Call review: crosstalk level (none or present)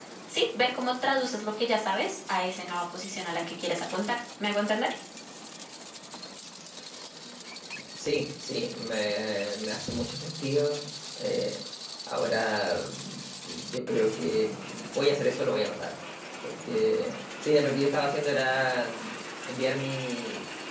none